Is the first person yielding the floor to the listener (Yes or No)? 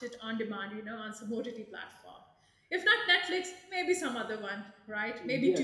Yes